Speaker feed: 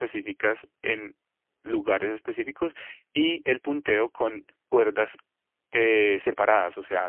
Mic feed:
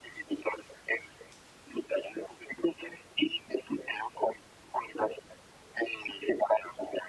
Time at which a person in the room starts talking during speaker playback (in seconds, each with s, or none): none